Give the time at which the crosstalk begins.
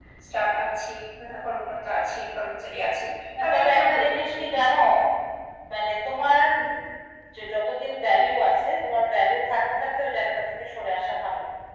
3.5 s

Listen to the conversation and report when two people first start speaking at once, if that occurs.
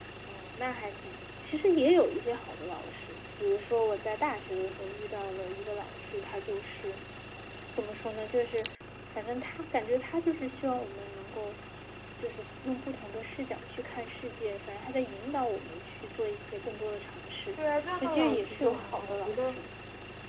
18.0 s

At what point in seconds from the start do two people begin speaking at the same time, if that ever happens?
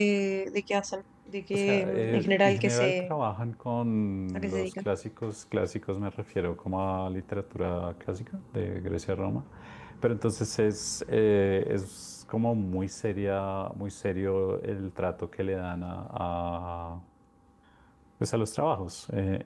1.5 s

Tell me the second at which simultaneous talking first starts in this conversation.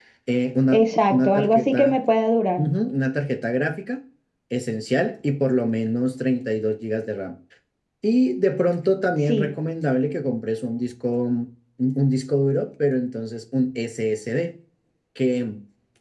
0.7 s

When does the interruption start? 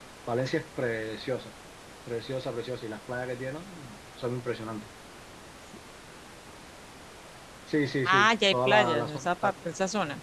8.1 s

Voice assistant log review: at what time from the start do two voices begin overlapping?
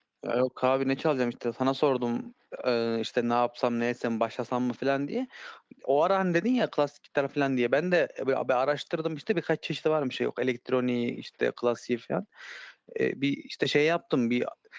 none

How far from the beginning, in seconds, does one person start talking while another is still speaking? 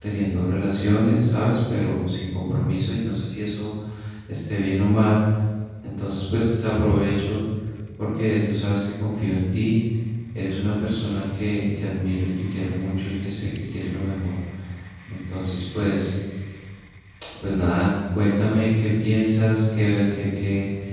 none

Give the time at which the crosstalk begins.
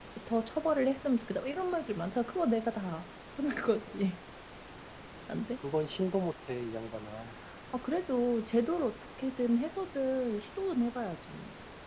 none

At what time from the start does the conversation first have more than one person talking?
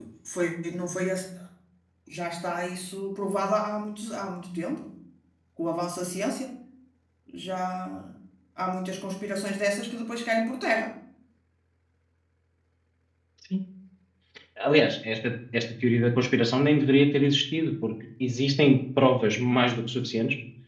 none

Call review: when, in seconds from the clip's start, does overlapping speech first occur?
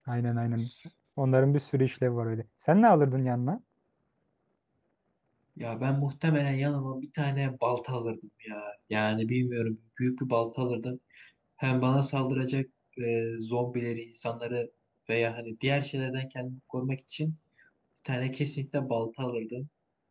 none

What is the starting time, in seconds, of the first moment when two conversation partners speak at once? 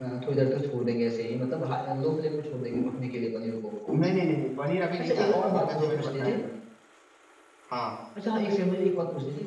5.0 s

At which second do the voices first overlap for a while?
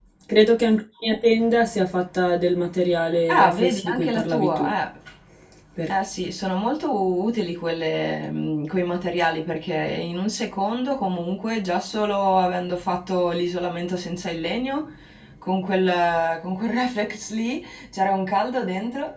3.3 s

